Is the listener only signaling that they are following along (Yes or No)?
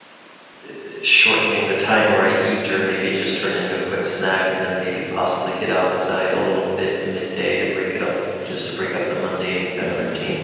No